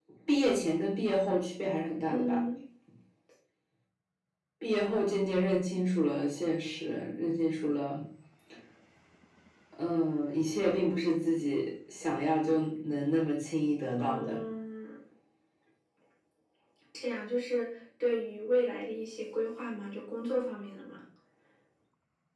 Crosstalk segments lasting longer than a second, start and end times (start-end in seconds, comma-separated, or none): none